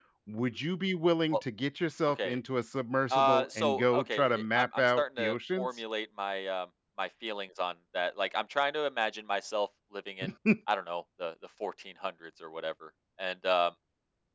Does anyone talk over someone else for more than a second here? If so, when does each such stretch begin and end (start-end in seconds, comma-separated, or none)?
3.1-5.7